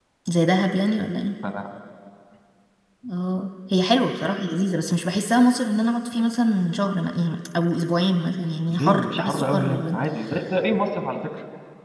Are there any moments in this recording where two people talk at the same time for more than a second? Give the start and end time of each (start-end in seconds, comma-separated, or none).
8.7-10.0